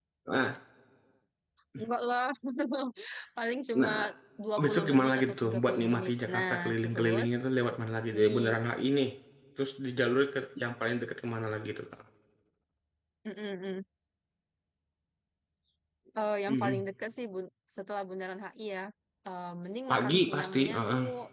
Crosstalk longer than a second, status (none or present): present